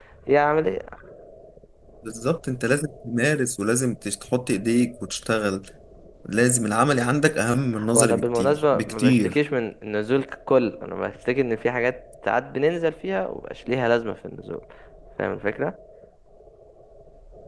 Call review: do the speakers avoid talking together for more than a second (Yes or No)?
No